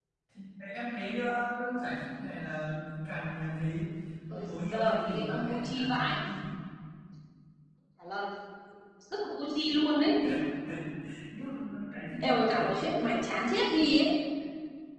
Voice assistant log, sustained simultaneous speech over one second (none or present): present